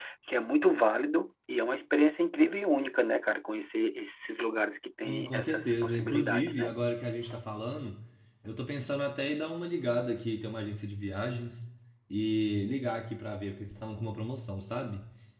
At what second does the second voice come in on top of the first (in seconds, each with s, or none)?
5.0 s